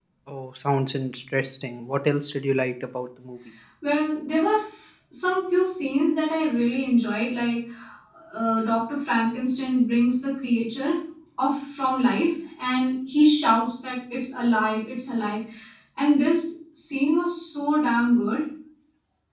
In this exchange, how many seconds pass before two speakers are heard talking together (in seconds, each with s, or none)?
none